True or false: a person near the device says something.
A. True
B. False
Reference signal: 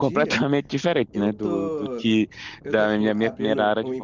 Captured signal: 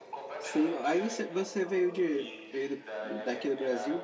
A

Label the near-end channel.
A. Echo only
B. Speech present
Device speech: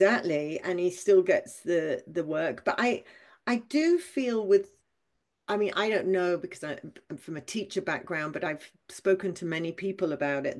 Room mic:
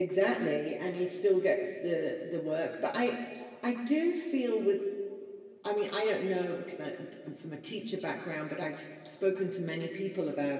A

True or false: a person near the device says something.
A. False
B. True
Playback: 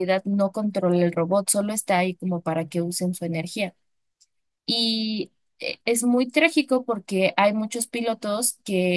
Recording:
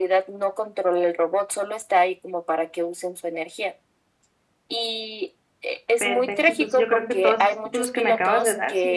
B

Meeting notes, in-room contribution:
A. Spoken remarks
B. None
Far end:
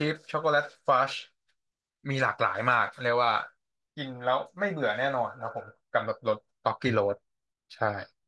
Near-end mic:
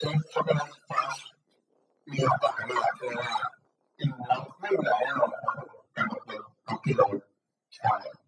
B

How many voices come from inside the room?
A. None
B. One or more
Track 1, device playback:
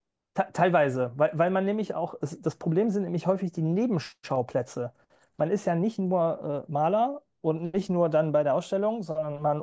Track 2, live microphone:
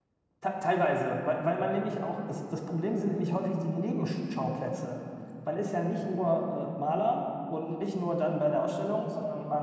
A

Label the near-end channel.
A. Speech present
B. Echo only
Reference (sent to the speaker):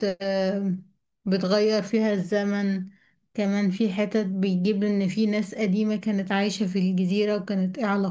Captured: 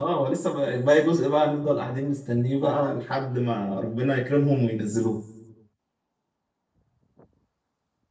A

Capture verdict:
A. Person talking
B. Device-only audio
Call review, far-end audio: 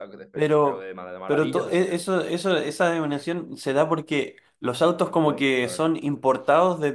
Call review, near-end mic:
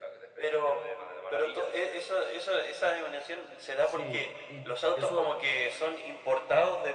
A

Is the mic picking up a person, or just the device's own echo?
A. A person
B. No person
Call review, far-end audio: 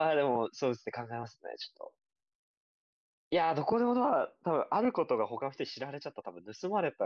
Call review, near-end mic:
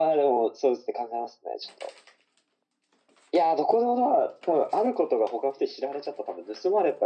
B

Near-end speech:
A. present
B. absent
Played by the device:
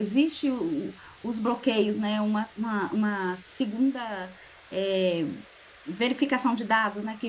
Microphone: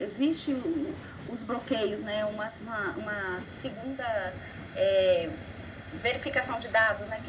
B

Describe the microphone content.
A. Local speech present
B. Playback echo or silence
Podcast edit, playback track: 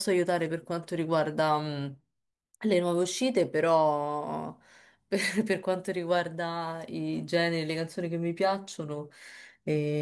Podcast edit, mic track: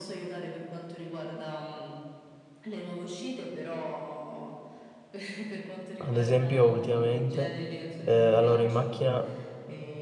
A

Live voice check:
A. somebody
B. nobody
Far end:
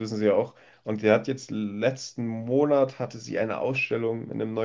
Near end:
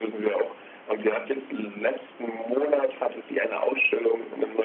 B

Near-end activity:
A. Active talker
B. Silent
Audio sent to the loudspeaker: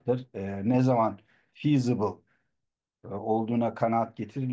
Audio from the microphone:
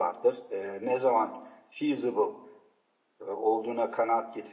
B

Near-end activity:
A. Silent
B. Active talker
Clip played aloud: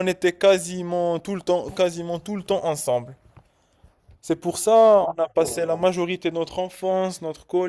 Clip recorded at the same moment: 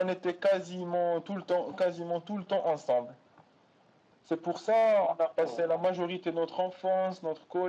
A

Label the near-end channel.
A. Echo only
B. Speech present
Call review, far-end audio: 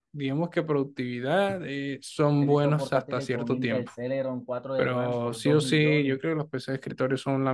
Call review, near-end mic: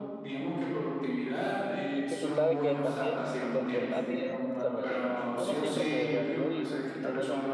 B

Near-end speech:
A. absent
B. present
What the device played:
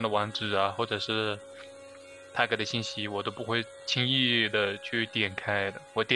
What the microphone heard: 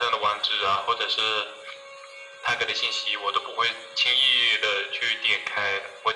A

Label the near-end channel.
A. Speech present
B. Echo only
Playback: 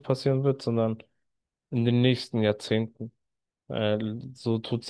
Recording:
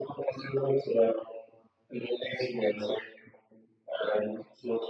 B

